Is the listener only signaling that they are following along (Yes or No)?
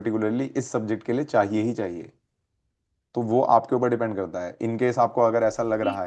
No